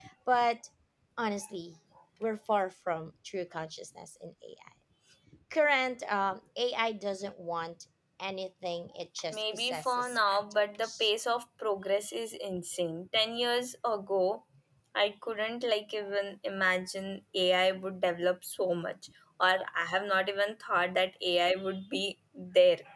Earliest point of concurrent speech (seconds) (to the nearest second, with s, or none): 9 s